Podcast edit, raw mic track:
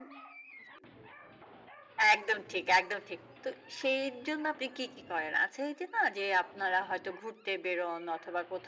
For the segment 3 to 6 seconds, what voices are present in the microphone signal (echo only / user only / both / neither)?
echo only